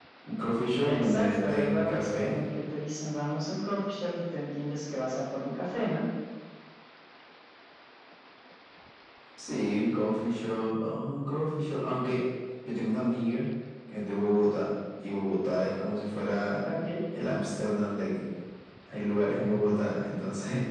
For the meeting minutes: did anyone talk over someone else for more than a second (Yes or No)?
Yes